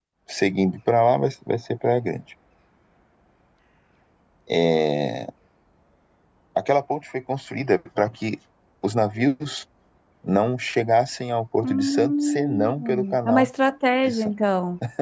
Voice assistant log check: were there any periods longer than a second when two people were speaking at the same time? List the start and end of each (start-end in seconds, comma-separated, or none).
11.6-13.5